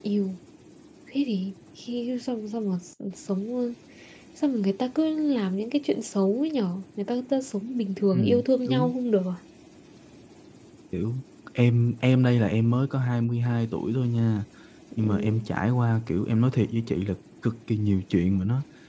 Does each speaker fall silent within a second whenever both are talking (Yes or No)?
Yes